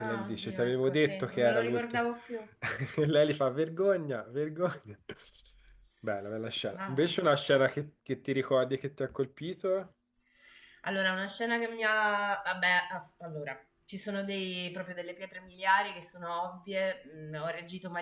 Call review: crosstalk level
present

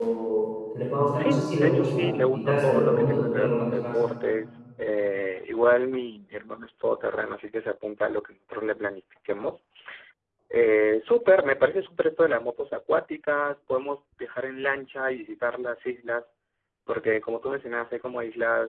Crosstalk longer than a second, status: present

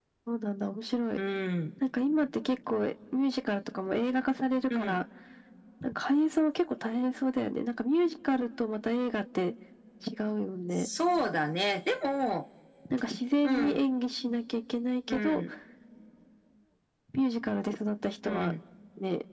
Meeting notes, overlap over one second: none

